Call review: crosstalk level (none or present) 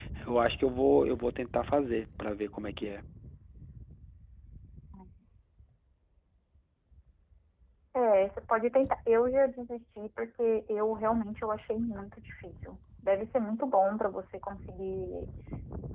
none